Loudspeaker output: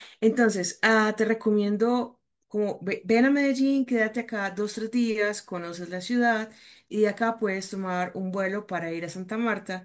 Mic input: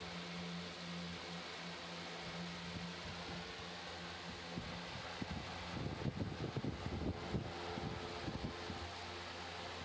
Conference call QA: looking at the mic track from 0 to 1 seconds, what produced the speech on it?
neither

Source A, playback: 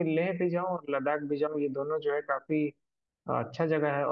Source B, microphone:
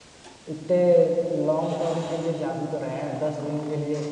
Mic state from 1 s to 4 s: user only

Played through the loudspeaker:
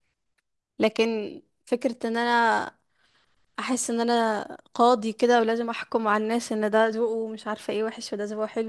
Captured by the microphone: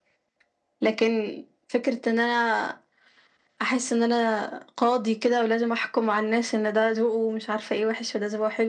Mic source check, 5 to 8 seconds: echo only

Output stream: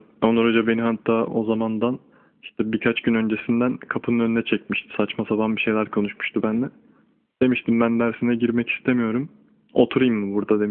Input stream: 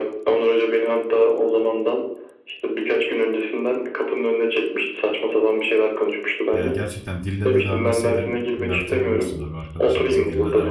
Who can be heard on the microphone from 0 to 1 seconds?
echo only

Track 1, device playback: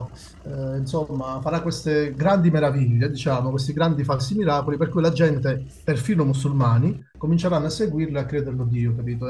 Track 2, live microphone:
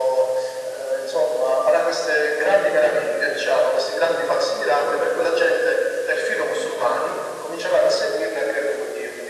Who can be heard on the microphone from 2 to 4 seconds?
echo only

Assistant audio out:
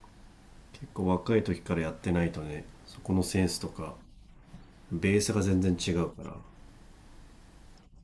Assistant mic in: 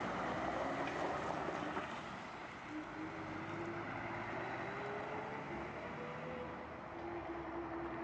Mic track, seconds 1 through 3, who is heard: neither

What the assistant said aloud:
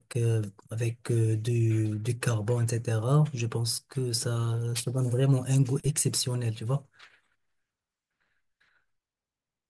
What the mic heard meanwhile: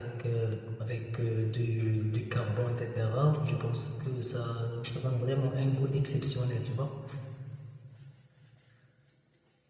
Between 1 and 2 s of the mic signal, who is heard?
echo only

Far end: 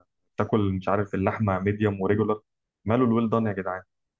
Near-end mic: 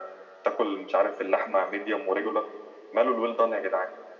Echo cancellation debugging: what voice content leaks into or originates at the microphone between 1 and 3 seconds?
echo only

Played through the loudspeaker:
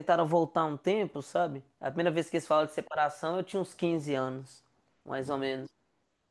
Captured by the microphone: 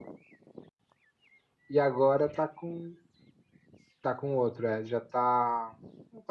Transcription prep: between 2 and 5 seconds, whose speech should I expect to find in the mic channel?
user only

